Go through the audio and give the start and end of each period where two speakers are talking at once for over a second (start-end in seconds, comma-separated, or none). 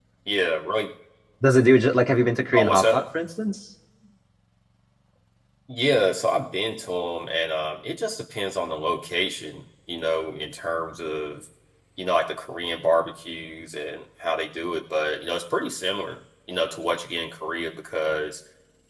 none